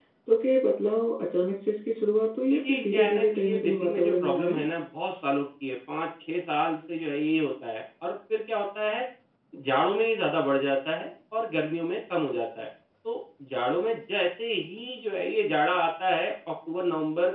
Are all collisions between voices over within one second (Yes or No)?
No